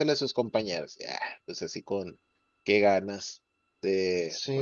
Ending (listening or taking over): listening